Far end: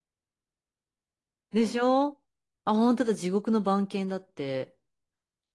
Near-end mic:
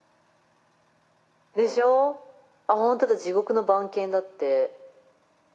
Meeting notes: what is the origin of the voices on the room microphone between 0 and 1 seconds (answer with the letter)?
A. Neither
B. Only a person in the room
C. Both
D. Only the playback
A